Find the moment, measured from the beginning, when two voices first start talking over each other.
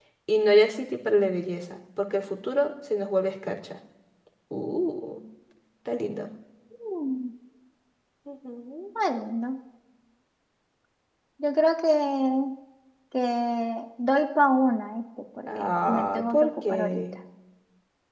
15 s

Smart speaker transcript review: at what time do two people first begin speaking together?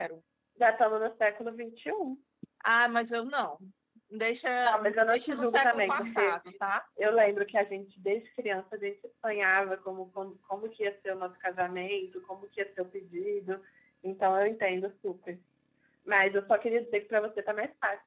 5 s

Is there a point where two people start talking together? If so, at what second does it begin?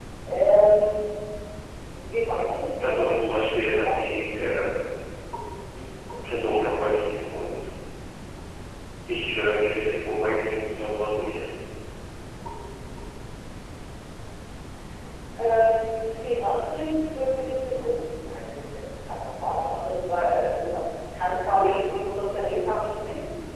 3 s

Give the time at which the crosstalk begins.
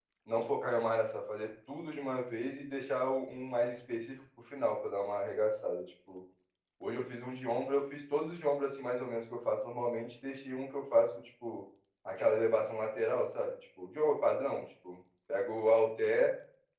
none

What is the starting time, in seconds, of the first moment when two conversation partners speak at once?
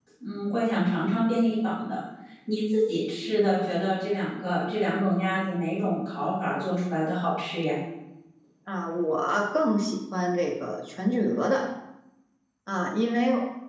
none

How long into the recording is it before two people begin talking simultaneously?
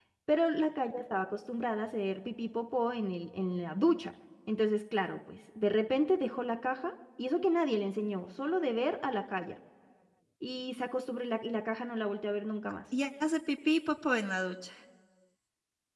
none

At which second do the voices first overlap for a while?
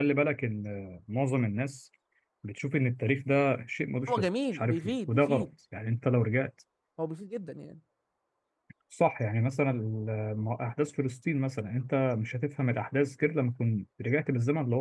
4 s

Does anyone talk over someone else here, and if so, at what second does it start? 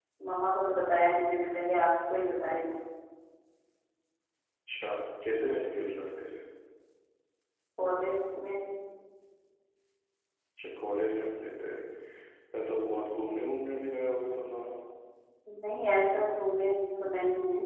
none

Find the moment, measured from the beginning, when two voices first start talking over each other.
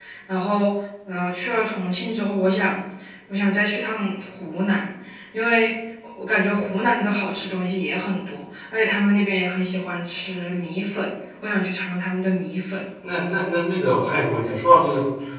none

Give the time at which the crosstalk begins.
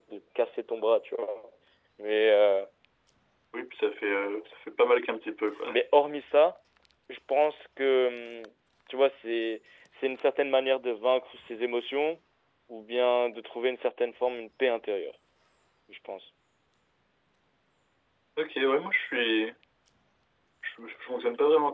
none

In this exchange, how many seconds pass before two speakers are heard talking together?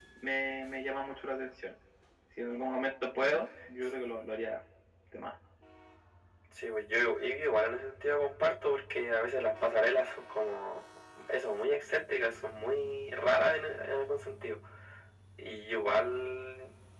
none

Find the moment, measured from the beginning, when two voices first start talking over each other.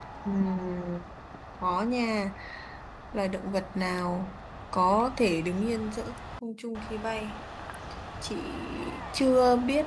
none

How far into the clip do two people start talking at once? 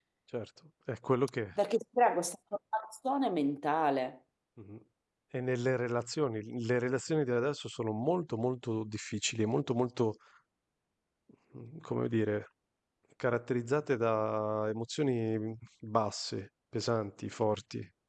none

